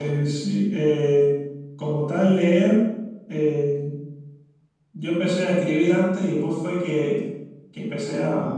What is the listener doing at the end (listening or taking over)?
listening